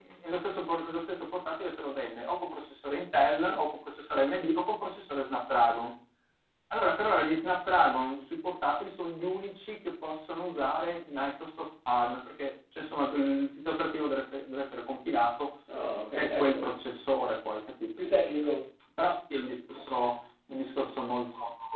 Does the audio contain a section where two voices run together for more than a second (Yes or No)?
No